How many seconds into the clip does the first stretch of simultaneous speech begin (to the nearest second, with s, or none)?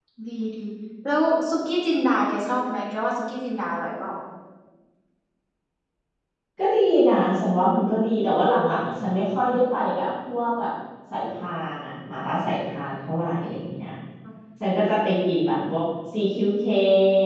none